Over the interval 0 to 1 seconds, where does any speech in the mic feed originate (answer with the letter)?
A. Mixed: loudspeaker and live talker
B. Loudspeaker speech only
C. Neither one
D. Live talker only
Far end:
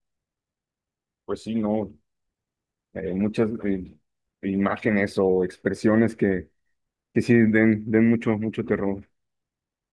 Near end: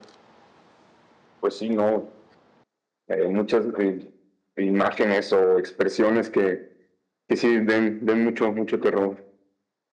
C